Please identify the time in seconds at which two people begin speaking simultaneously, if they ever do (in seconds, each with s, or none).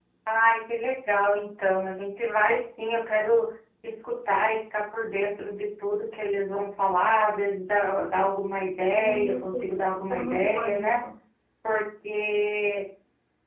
8.9 s